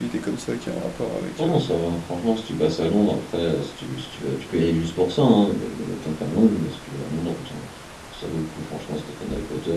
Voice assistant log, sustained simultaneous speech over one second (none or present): none